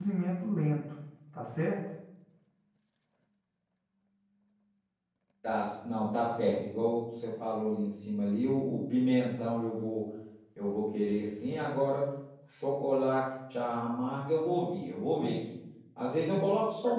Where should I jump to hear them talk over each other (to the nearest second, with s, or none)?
none